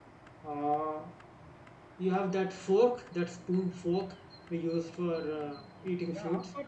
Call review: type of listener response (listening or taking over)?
taking over